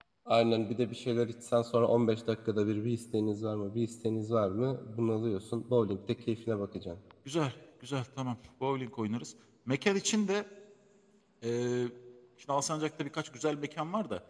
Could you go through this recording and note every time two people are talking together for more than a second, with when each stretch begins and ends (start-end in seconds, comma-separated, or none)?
none